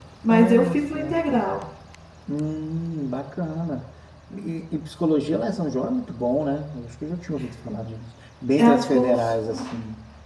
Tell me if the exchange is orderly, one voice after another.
No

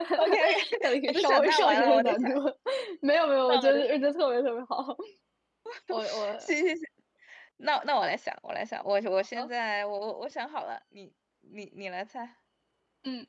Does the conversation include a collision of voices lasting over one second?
Yes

